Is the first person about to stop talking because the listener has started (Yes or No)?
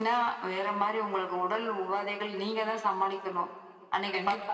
Yes